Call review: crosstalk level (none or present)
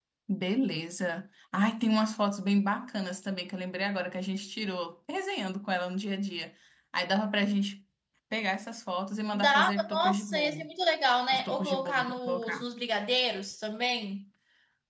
present